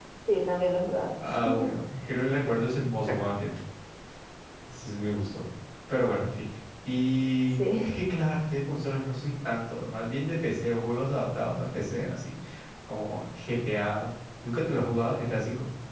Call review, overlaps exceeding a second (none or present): none